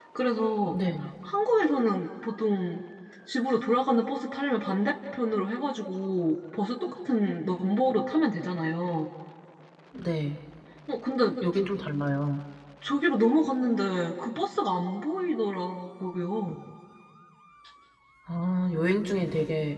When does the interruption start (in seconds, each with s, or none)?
none